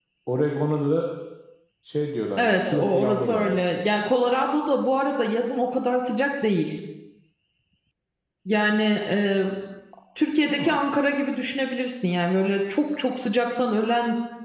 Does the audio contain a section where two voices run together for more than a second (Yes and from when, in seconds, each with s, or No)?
Yes, from 2.4 s